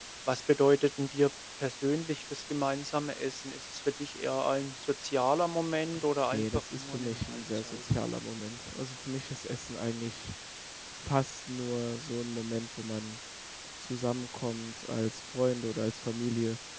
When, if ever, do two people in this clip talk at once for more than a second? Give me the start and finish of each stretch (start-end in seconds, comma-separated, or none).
6.3-7.8